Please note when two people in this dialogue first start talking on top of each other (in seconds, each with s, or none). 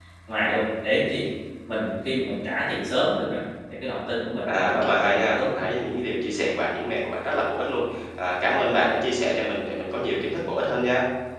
4.5 s